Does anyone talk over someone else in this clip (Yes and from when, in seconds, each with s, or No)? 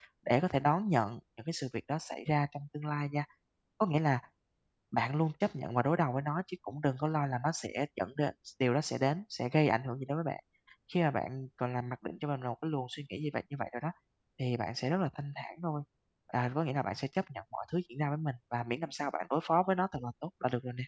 No